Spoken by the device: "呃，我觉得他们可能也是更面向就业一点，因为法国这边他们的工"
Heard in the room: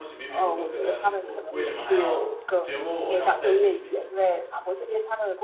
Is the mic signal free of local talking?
No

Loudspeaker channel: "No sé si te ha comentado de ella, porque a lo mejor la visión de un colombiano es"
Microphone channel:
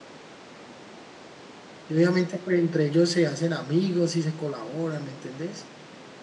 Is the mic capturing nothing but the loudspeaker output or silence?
No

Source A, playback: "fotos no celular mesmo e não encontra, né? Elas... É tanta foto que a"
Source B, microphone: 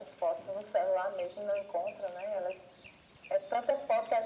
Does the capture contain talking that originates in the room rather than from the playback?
No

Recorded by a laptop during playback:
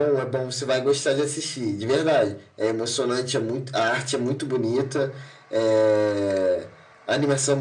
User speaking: No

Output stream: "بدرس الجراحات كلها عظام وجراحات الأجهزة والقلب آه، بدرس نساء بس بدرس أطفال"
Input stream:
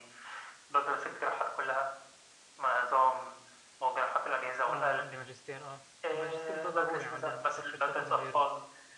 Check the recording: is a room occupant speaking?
Yes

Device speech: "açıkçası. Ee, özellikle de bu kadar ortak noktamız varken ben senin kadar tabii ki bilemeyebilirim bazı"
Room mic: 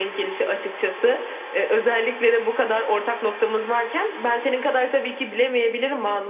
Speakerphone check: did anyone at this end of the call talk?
No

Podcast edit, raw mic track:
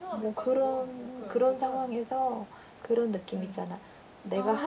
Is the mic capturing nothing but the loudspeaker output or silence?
No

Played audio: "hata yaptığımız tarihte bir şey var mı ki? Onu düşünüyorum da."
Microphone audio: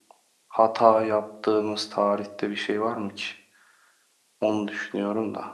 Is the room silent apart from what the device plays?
Yes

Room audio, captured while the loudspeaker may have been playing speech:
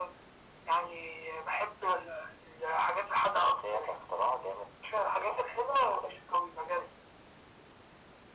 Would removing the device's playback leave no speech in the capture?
Yes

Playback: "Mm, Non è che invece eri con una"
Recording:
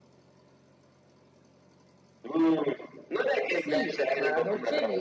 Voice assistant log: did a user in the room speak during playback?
Yes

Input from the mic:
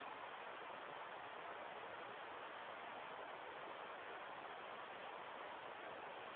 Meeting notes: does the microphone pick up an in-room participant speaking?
No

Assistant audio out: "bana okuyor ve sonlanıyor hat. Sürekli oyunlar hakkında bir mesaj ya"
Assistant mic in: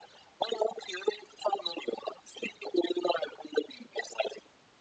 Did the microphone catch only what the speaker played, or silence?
Yes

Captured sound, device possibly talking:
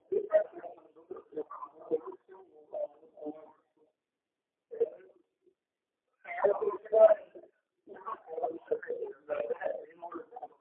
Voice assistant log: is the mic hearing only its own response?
Yes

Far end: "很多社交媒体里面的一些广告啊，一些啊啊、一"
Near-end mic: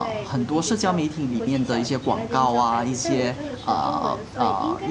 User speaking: Yes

